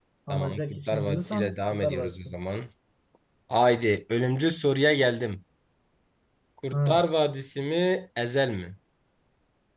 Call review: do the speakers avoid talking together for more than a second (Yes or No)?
No